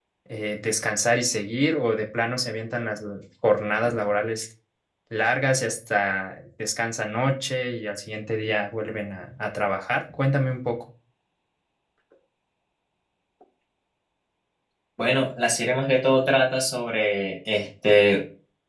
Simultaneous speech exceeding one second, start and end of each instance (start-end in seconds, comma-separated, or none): none